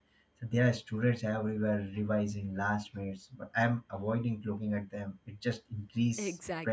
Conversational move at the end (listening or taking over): taking over